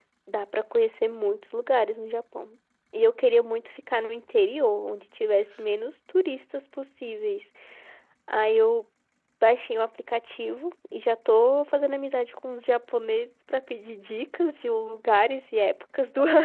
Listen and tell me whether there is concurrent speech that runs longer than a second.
No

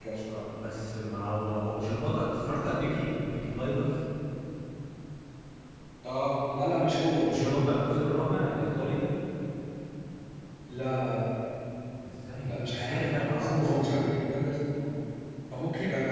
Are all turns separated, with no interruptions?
No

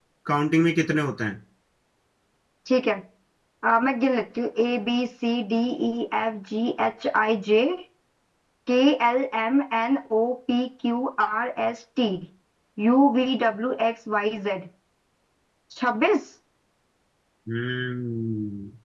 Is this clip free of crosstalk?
Yes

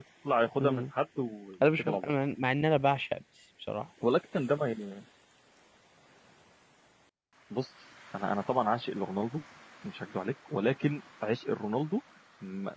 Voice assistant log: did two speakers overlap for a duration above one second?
No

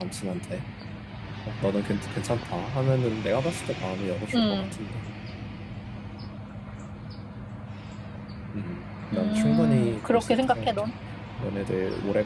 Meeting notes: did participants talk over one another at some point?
Yes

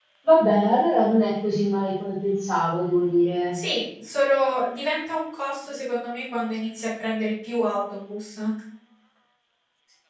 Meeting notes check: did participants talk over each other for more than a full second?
No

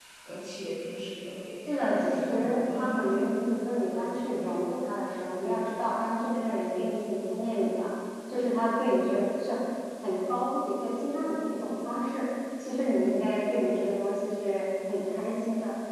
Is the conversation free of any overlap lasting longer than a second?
No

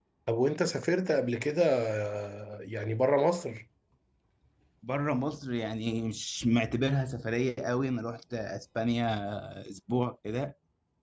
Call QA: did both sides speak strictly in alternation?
Yes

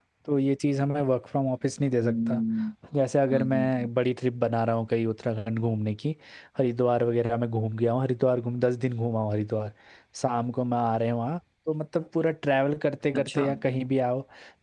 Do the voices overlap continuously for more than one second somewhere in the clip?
No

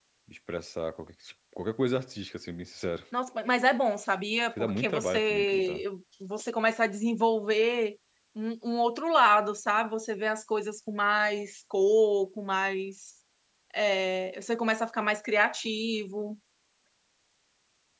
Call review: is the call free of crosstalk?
No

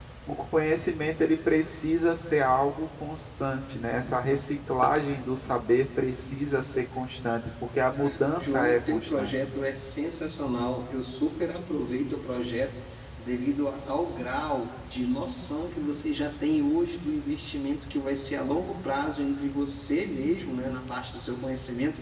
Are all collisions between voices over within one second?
No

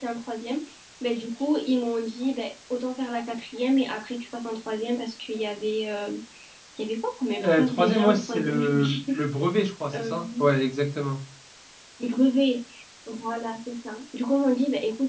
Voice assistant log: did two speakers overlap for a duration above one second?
Yes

